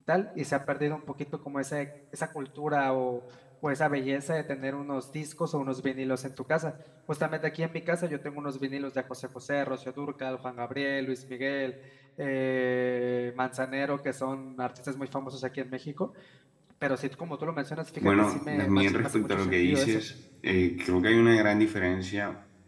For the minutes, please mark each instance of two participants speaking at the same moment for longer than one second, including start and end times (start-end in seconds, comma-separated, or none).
18.0-20.0